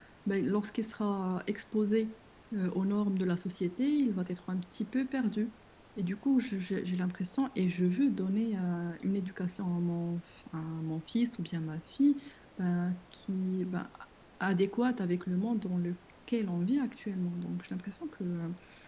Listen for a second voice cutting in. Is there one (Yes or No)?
No